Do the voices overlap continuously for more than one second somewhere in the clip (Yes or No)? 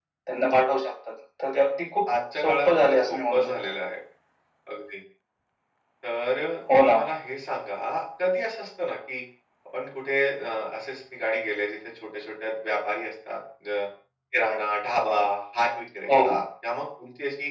Yes